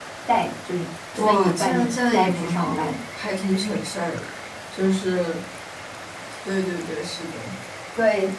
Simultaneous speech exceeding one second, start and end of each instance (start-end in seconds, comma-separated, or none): 1.1-2.9